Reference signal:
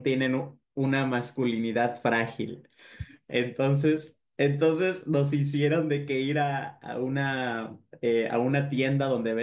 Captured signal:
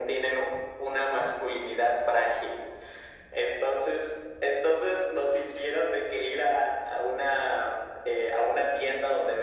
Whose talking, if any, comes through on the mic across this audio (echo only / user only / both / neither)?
echo only